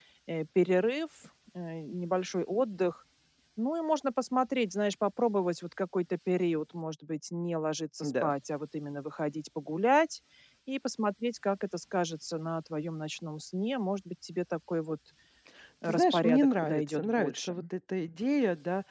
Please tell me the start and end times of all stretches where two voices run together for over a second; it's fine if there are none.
15.8-17.5

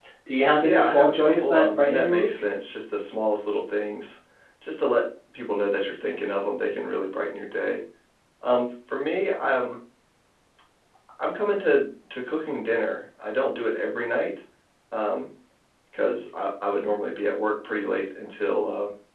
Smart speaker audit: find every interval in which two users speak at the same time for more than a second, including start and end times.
0.5-2.3

